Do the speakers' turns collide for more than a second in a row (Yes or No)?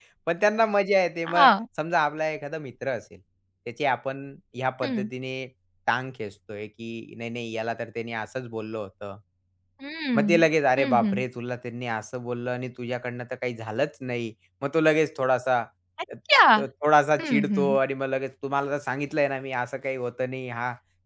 No